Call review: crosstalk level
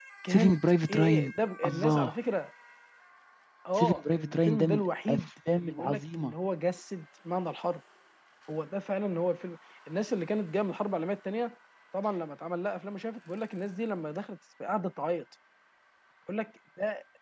present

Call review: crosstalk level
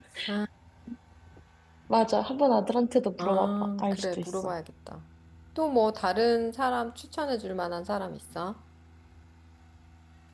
present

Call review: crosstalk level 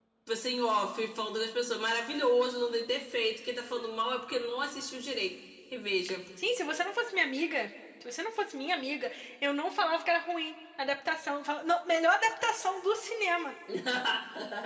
none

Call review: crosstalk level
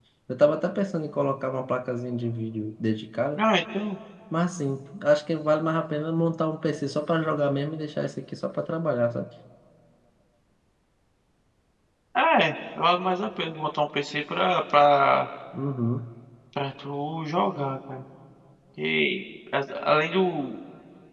none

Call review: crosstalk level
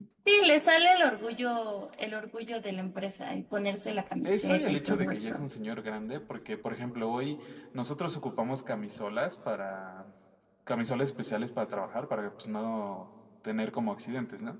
present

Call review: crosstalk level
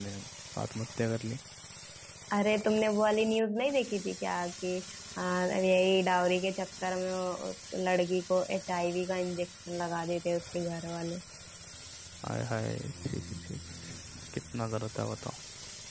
none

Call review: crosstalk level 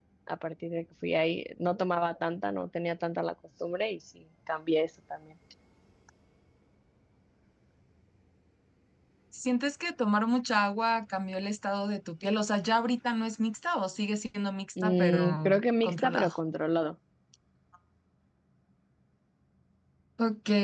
present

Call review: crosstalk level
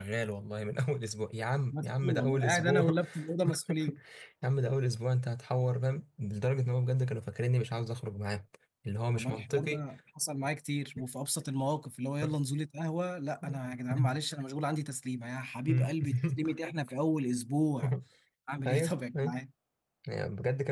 present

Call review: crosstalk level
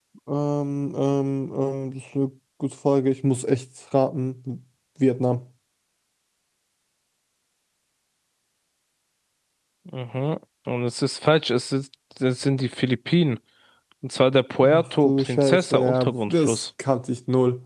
present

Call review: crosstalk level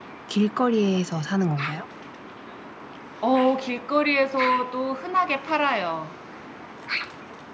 none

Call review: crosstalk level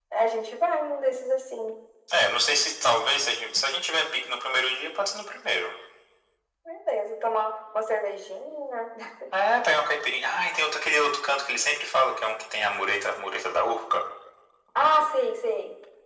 none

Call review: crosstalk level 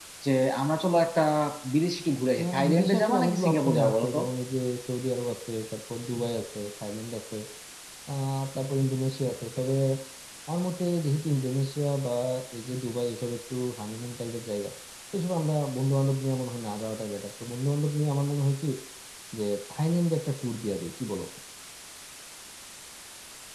present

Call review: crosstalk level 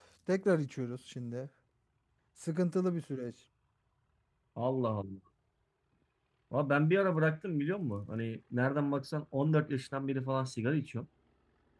none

